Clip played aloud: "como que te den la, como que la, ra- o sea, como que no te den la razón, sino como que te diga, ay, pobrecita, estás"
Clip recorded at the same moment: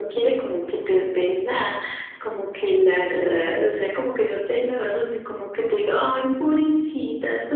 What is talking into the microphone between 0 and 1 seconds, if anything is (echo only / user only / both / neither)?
echo only